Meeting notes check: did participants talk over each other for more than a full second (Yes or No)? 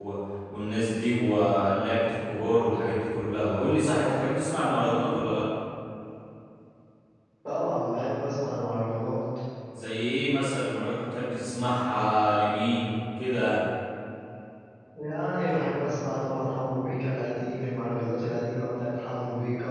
No